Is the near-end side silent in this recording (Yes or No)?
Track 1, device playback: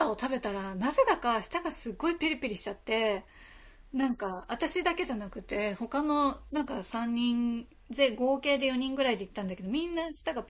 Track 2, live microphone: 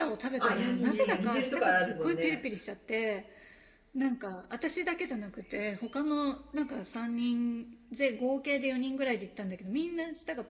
No